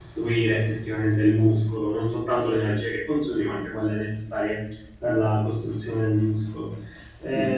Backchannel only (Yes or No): Yes